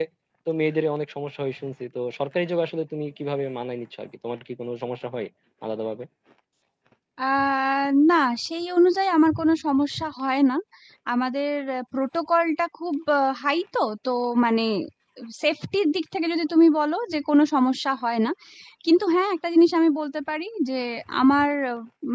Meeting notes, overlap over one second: none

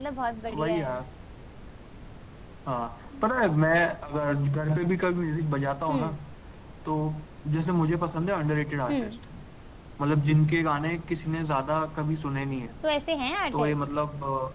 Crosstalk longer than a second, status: none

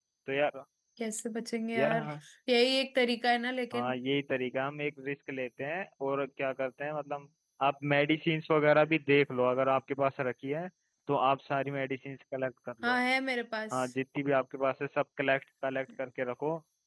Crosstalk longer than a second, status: none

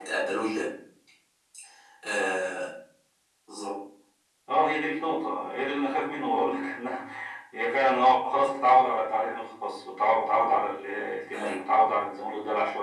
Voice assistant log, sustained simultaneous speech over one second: none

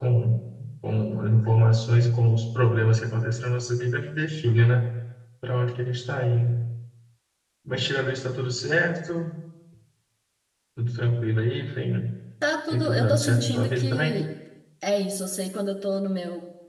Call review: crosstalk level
present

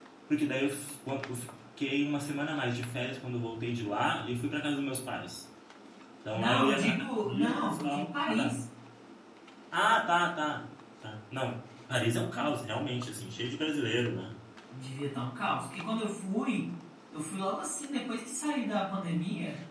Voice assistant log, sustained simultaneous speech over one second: present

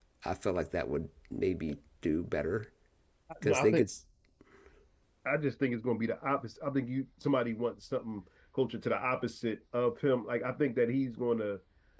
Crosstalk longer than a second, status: none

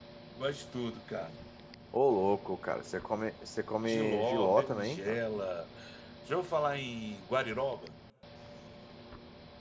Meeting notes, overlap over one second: present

